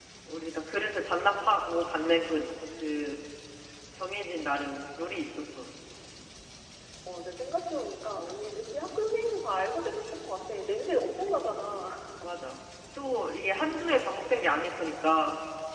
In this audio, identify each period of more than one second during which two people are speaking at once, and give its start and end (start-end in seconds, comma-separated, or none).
none